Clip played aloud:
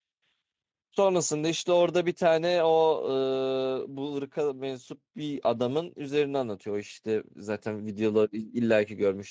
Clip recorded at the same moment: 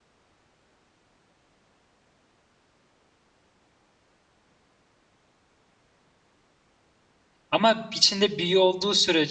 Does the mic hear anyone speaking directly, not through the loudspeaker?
Yes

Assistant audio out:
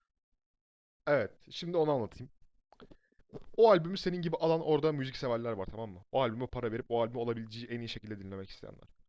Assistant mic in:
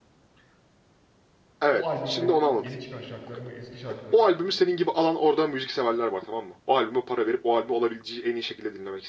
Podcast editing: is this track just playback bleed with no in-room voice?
No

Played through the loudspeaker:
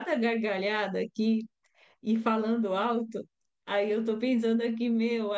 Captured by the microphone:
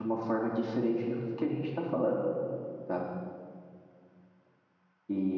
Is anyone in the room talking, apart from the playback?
Yes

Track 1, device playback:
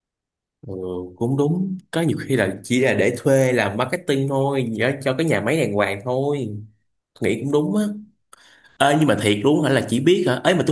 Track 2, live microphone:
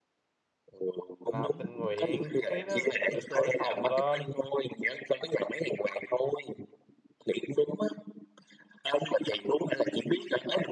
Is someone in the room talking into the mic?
Yes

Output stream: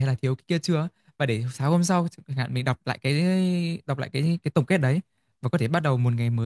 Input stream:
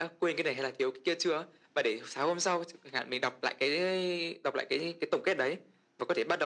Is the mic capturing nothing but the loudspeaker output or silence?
Yes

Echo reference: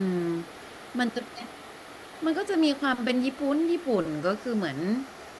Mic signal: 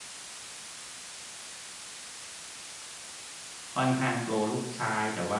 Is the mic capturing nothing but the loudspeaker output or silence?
No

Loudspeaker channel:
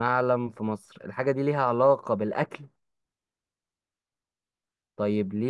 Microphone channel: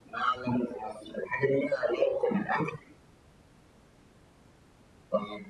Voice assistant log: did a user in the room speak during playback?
No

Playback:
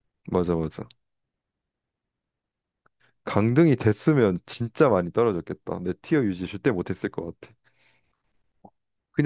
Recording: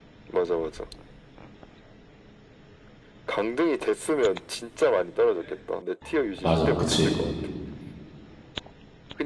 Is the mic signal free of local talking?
No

